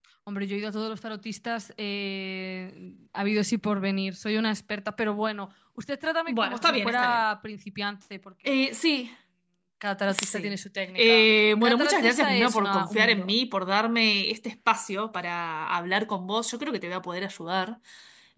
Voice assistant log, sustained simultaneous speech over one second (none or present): present